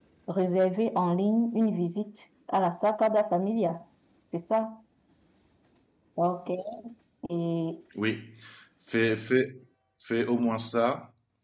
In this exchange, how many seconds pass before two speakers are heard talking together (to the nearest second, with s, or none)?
none